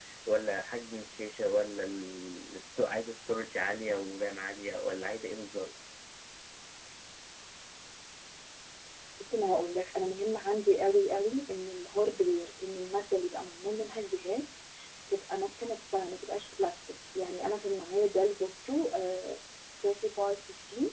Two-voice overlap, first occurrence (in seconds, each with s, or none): none